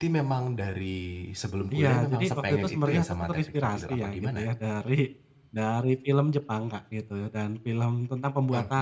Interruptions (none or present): present